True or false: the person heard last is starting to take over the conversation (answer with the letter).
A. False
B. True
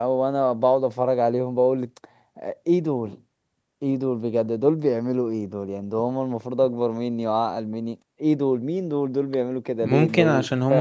B